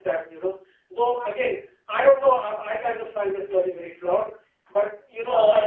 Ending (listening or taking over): listening